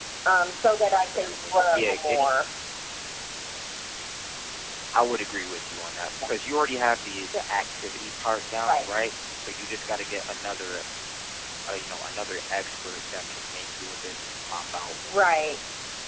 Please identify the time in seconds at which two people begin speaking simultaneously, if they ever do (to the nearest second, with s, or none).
1 s